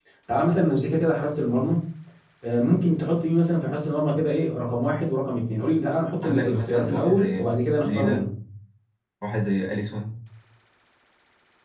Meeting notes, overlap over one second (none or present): present